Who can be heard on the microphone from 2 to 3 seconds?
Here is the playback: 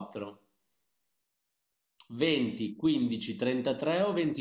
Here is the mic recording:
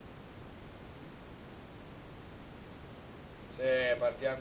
neither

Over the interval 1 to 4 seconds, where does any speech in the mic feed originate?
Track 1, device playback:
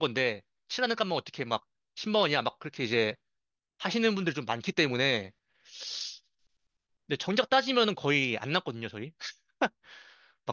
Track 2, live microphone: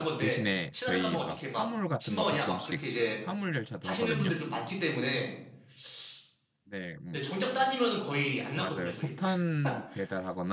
both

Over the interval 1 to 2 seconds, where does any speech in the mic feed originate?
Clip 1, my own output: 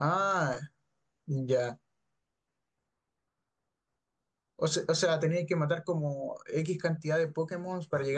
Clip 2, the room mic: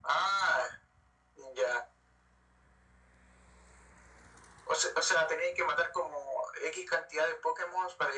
echo only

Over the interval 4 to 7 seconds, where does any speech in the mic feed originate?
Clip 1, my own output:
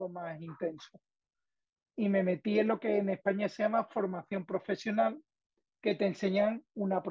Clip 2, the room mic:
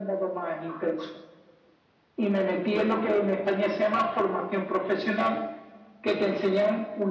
echo only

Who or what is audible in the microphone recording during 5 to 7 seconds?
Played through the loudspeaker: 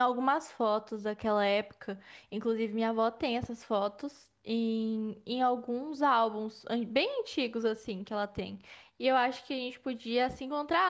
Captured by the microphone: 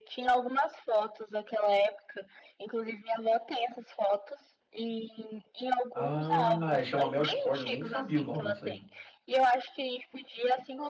both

